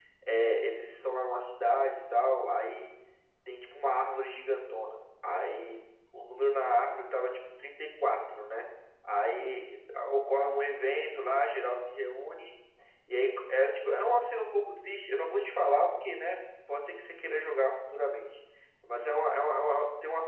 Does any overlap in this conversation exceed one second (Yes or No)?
No